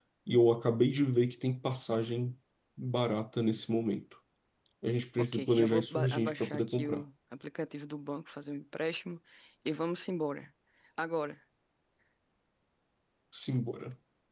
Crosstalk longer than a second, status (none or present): present